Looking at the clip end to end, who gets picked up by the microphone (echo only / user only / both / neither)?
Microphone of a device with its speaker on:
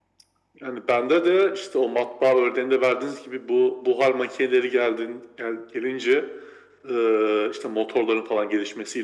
echo only